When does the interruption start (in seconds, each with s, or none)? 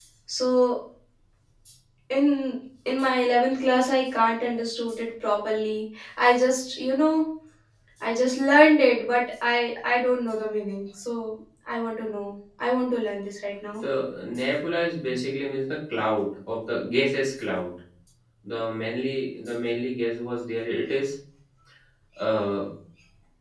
none